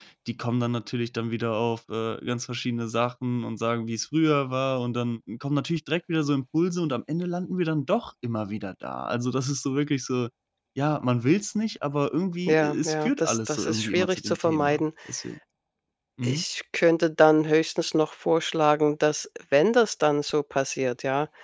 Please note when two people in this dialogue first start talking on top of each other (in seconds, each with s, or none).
12.5 s